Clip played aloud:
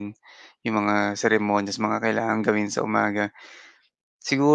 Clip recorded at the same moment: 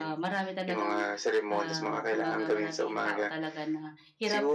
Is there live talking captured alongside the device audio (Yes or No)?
Yes